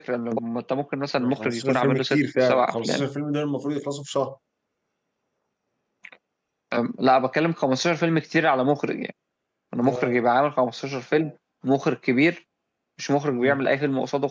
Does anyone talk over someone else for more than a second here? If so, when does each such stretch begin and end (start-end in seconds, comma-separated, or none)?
1.2-3.0